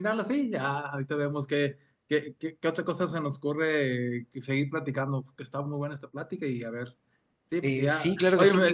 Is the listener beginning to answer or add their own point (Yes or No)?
Yes